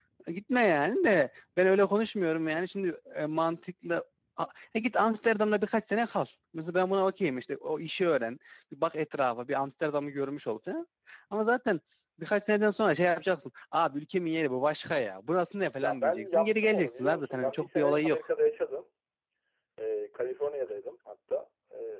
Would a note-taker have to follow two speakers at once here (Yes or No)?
Yes